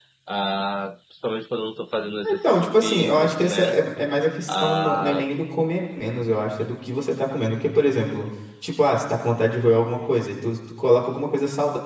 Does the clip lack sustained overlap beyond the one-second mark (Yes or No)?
No